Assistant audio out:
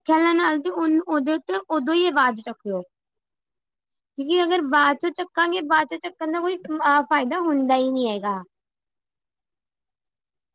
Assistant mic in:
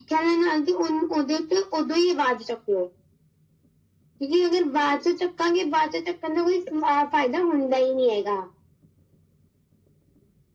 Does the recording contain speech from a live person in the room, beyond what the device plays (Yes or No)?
No